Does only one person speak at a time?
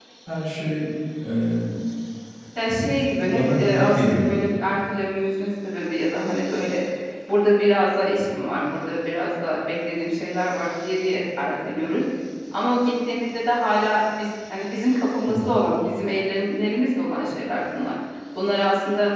No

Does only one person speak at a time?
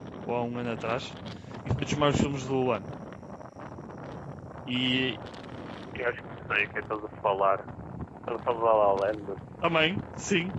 Yes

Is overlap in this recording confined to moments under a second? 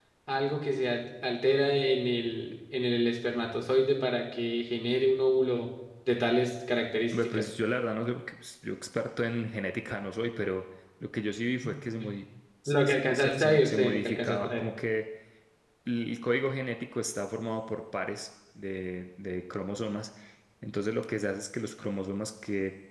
No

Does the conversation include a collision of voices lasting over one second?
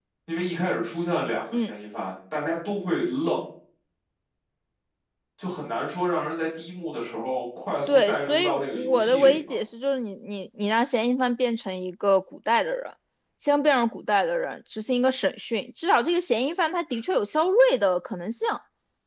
Yes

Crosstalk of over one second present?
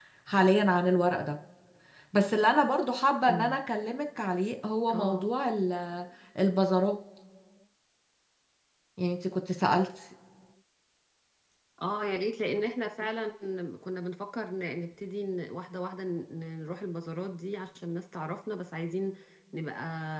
No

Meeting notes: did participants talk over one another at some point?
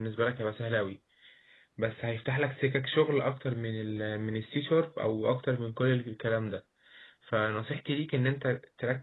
No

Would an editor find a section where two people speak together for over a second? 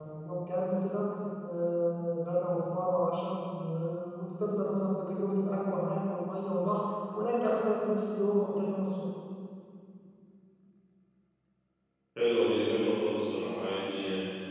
No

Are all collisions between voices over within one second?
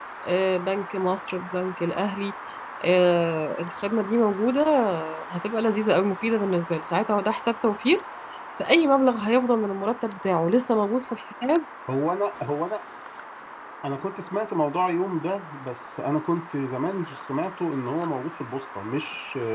Yes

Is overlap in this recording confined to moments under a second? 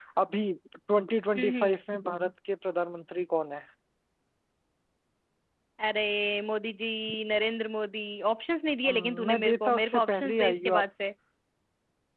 No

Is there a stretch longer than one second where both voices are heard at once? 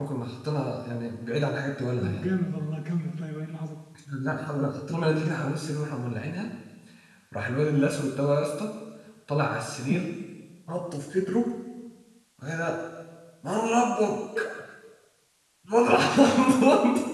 No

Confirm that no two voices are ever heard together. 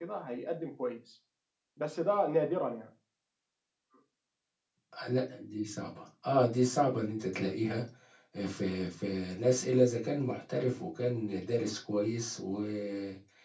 Yes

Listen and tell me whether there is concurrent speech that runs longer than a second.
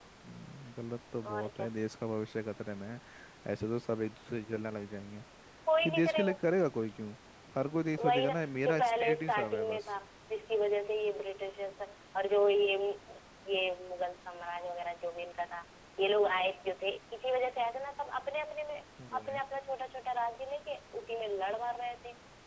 Yes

